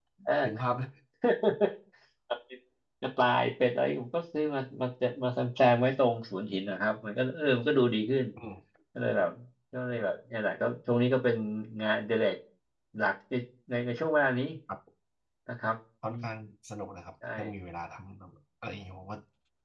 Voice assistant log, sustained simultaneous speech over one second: none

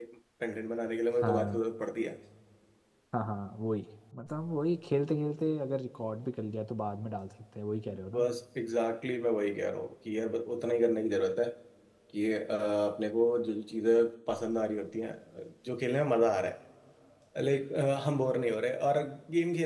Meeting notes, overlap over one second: none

